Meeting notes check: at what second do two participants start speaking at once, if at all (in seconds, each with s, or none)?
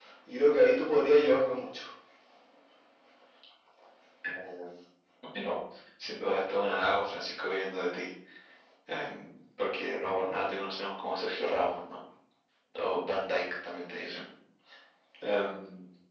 none